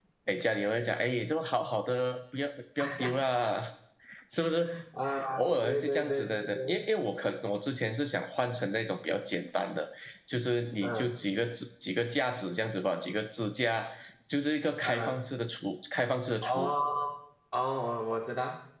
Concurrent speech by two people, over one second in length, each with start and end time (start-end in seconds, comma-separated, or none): 5.4-6.8